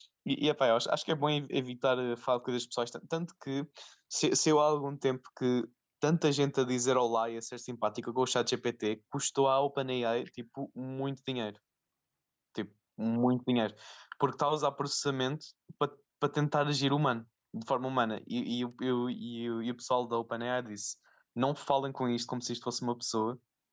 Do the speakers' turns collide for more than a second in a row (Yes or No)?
No